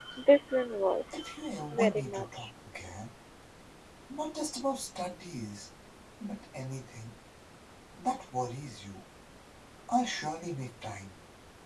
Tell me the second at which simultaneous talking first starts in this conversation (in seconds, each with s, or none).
1.1 s